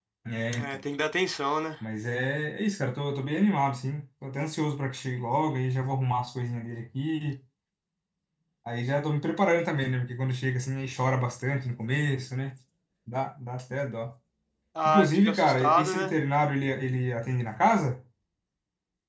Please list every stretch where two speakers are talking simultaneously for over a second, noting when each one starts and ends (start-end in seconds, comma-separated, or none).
14.8-16.1